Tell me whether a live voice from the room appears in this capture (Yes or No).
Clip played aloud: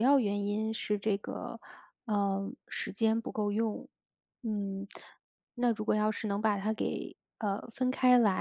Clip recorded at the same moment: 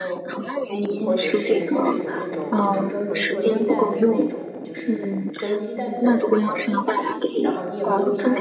Yes